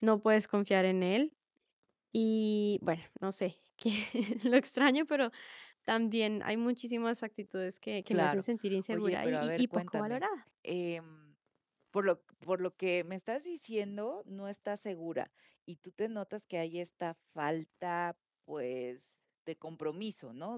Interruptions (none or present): present